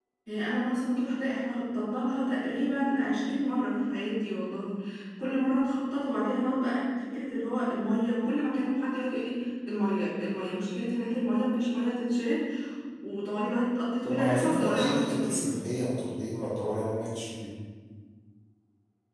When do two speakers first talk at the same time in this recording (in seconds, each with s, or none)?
14.0 s